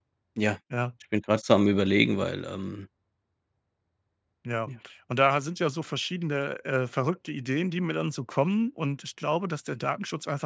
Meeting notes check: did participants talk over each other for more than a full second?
No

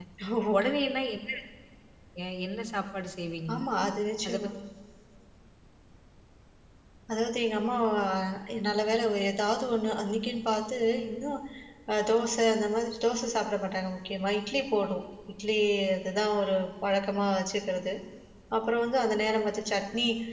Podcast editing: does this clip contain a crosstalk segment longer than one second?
No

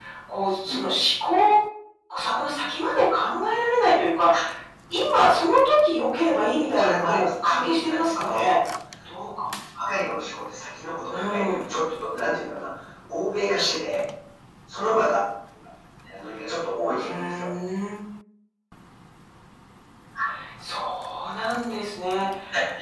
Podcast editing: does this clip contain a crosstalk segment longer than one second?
Yes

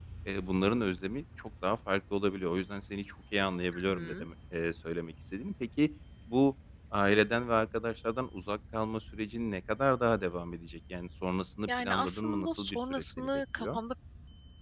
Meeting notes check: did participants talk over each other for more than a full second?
Yes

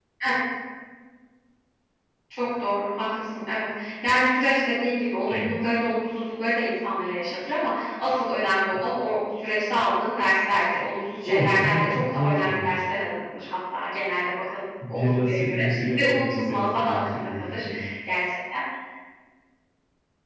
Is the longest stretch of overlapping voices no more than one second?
No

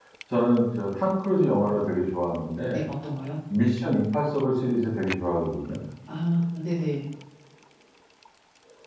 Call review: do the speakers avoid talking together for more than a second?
Yes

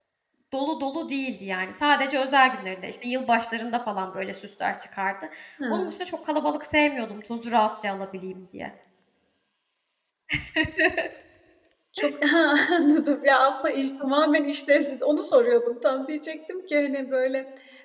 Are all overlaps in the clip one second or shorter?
Yes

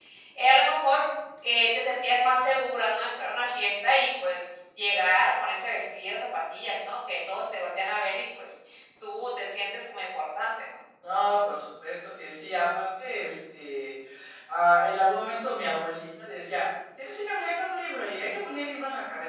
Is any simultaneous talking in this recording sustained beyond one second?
No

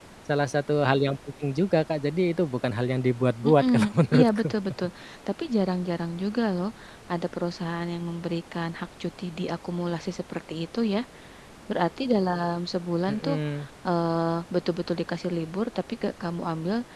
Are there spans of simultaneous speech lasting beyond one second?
No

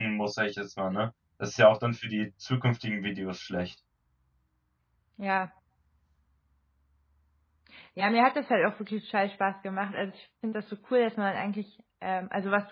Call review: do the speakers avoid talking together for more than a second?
Yes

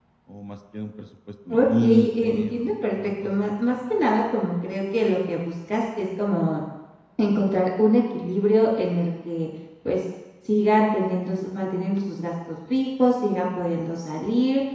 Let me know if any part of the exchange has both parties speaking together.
Yes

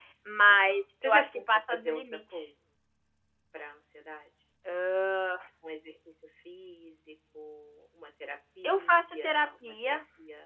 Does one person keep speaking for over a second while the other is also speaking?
Yes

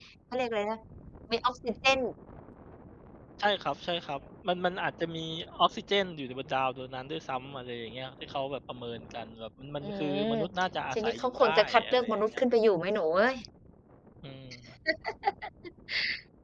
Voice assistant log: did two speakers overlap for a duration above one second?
Yes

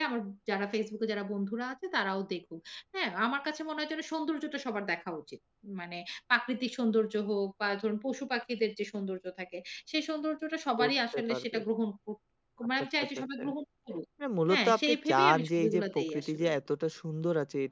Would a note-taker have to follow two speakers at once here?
Yes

